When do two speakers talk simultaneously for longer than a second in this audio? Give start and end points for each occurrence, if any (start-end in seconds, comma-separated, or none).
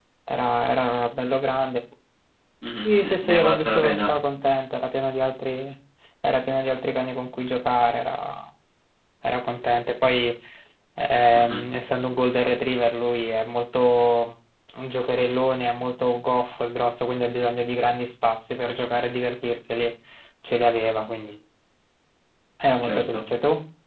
2.8-4.1